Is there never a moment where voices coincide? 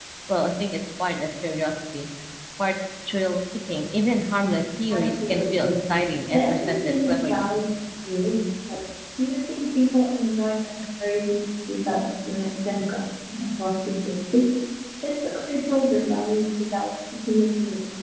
No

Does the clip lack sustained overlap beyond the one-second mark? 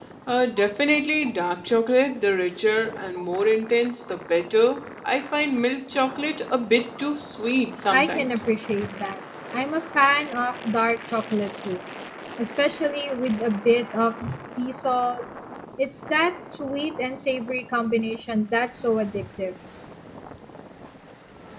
Yes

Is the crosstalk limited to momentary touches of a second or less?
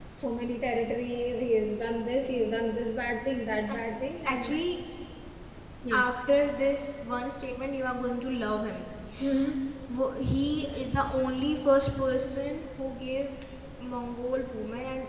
Yes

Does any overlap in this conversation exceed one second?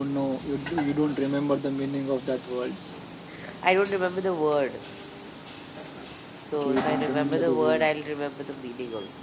Yes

